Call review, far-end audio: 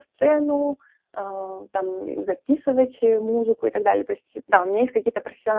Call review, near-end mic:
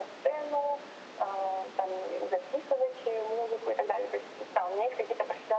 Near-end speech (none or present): none